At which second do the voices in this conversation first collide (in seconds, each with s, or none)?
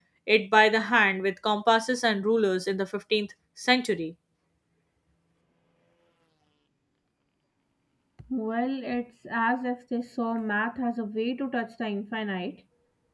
none